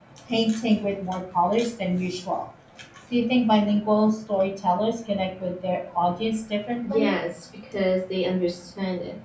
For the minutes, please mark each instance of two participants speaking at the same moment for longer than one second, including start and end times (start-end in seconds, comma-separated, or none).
none